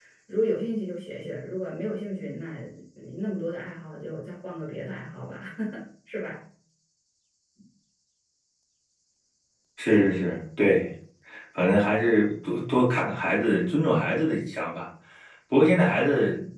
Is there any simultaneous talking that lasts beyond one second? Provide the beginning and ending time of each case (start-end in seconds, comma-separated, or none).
none